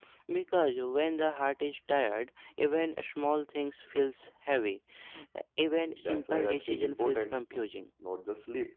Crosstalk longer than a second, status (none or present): present